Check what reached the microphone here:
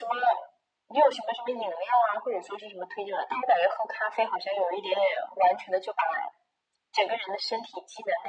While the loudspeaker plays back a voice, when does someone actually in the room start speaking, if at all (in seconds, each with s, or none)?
none